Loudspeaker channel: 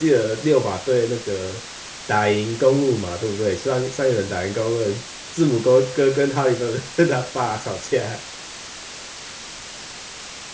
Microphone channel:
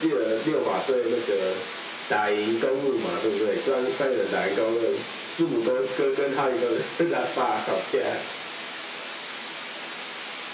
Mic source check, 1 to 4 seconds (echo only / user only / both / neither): echo only